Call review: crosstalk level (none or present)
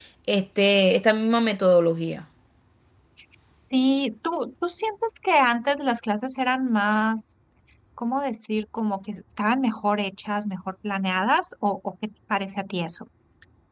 none